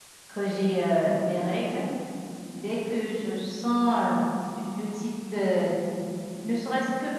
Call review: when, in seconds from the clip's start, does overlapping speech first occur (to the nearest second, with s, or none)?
none